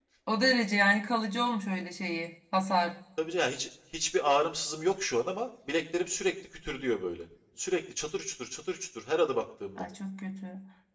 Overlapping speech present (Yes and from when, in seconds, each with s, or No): No